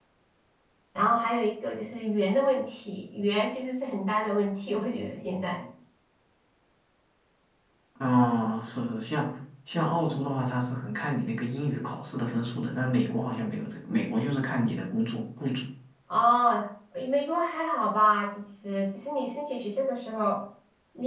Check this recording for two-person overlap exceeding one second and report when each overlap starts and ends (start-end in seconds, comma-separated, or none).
none